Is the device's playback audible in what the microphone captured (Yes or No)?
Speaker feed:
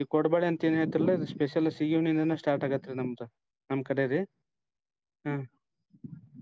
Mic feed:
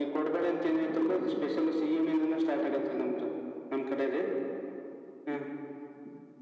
Yes